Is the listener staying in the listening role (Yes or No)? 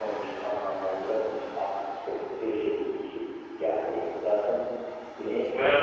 No